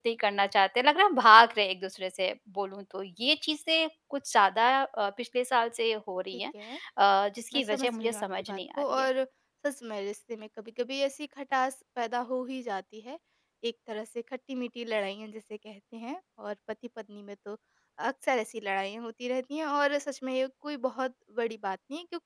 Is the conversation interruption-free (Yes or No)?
No